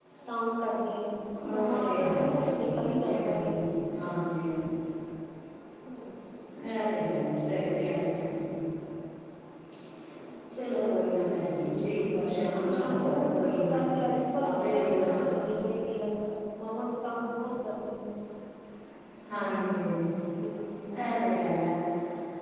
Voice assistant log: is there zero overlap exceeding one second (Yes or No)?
No